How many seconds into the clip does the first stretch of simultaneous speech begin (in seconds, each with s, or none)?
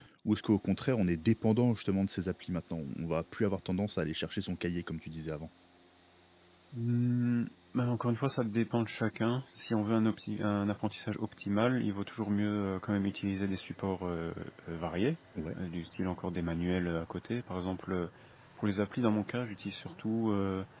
none